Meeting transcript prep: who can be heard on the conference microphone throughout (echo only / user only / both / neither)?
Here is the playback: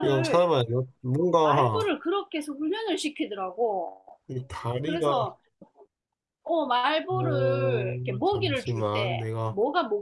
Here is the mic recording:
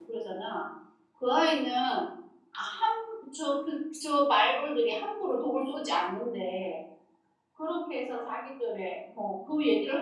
user only